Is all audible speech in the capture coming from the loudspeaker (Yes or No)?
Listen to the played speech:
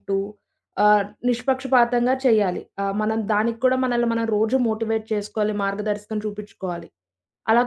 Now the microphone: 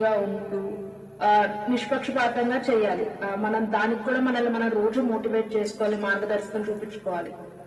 Yes